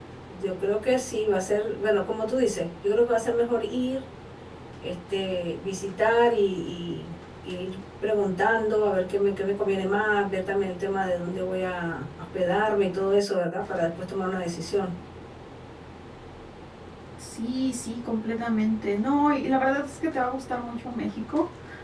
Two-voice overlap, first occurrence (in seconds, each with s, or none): none